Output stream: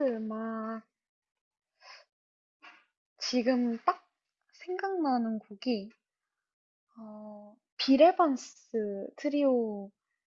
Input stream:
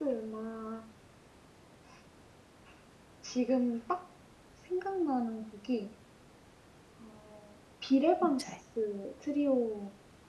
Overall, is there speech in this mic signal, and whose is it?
both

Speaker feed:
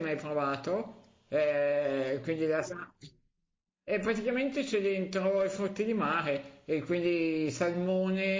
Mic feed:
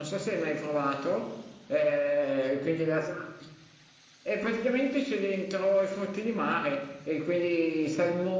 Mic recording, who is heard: echo only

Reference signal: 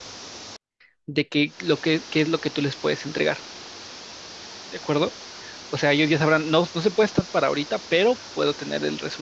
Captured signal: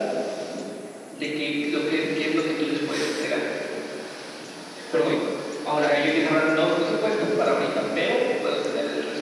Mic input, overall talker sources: both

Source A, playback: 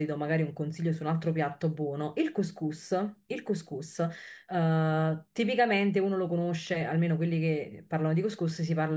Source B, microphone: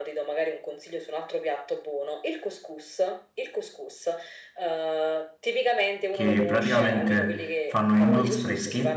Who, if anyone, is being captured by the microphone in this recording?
both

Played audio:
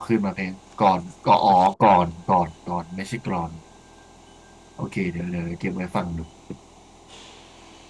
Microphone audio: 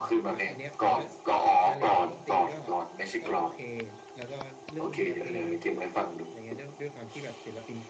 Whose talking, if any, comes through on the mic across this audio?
both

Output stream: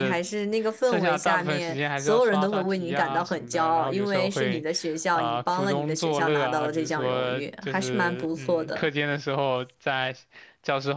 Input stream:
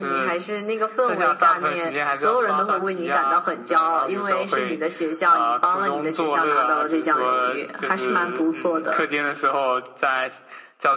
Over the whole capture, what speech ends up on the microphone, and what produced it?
echo only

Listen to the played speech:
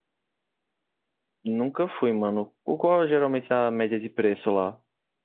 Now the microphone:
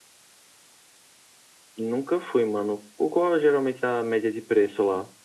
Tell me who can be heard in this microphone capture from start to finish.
echo only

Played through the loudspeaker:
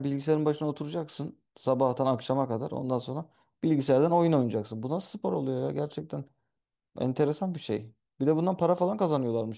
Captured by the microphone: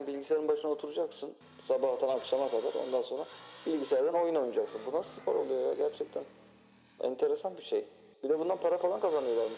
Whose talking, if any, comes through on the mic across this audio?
echo only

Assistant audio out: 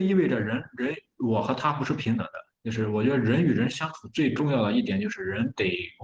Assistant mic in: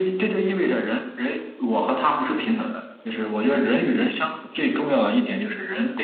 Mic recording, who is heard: echo only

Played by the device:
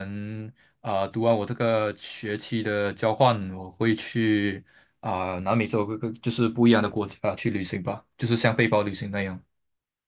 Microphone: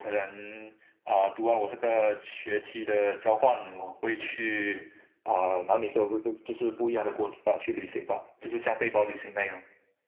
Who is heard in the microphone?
echo only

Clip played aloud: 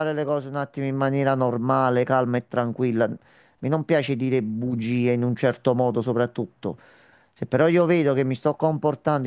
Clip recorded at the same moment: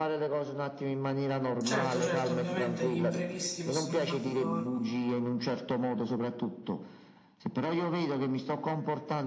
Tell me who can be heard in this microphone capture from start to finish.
both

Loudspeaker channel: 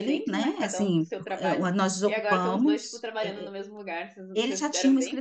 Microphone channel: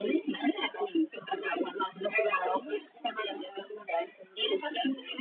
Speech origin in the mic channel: echo only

